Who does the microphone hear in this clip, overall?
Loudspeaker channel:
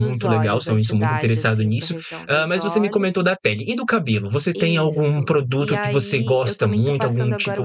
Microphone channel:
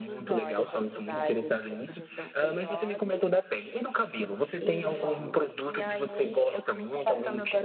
both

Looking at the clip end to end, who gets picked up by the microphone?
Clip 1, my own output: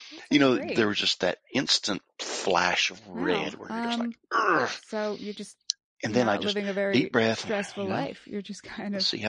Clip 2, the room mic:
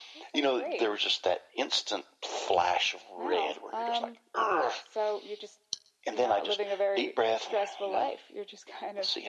echo only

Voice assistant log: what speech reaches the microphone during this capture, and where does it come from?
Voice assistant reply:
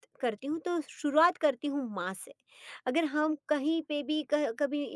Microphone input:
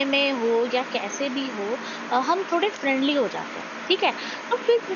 user only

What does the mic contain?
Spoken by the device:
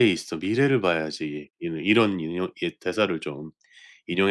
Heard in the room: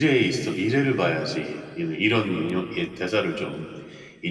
echo only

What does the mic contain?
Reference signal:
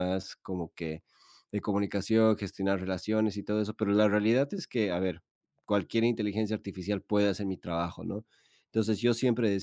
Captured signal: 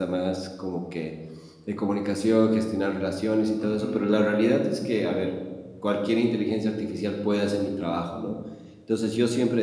both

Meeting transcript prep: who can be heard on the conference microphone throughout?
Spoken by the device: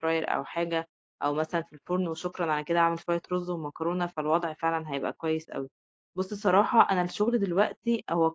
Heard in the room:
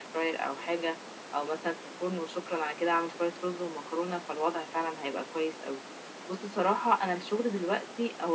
echo only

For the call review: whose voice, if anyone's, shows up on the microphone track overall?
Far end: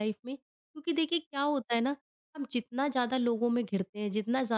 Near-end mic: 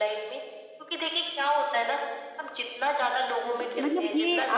both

